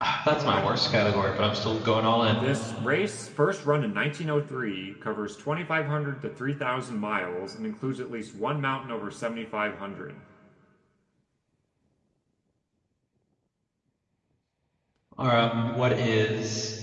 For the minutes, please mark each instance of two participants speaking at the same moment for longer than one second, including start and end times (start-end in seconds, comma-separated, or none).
none